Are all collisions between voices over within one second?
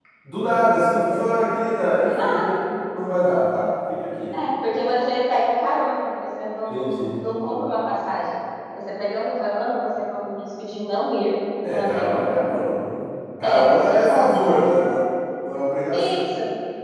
No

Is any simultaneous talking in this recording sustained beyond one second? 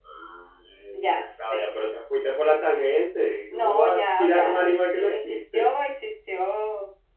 Yes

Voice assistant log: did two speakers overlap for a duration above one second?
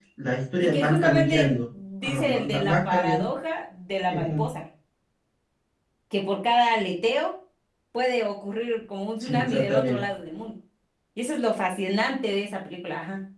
Yes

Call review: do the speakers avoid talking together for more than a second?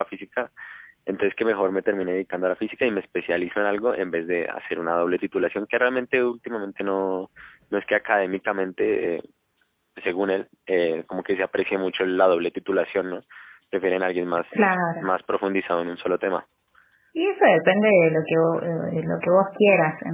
Yes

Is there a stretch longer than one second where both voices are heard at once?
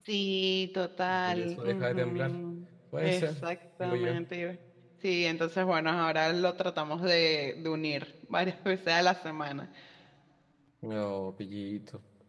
Yes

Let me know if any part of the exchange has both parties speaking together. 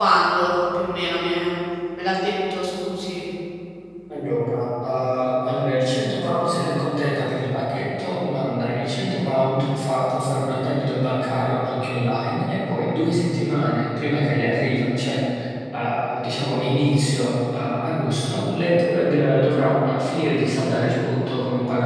No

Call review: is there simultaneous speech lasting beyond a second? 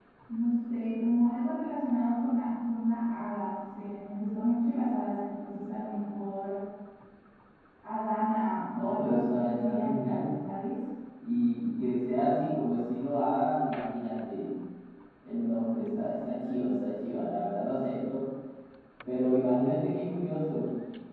Yes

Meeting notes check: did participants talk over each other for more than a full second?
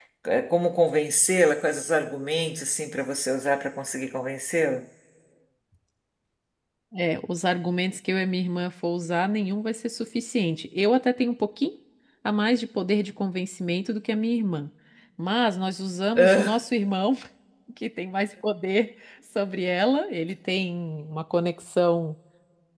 No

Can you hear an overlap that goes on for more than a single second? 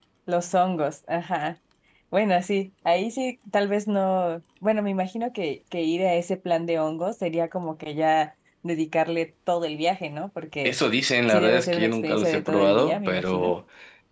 Yes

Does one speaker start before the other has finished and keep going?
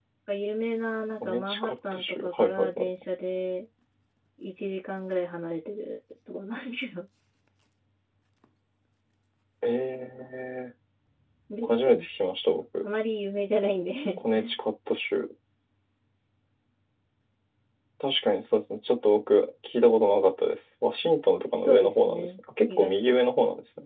Yes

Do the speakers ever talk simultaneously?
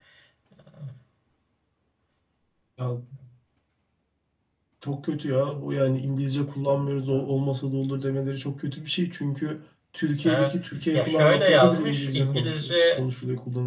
Yes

